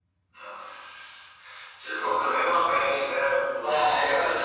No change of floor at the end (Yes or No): No